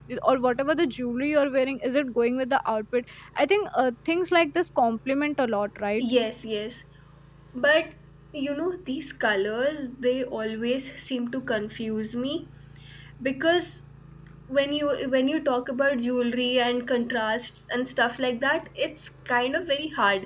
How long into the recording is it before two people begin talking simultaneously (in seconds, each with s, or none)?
none